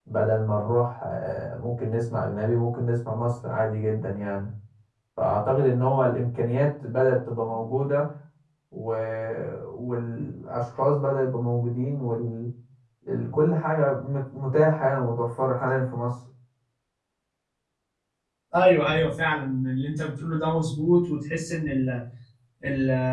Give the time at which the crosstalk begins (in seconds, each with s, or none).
none